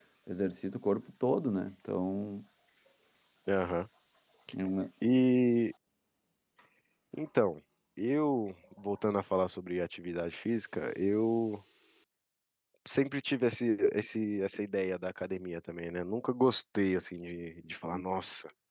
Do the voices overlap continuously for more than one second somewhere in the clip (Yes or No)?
No